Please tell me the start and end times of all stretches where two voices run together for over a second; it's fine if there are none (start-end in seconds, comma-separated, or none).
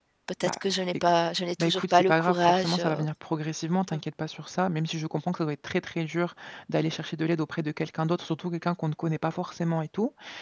1.6-3.0